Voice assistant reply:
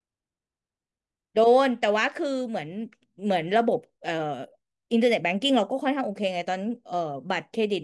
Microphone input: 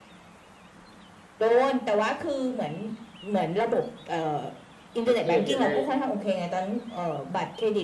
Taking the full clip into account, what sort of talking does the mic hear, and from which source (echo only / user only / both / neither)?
both